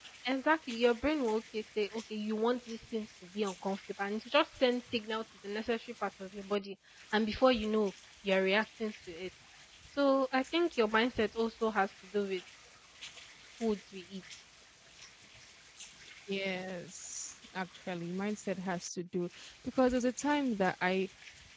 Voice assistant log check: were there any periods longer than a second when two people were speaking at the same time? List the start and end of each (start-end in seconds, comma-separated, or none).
none